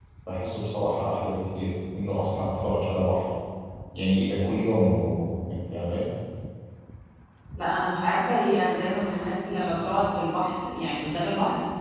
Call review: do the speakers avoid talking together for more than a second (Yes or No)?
Yes